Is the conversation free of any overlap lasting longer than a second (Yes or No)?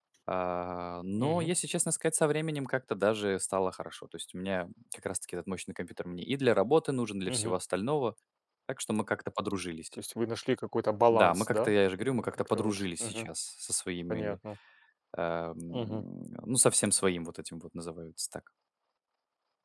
No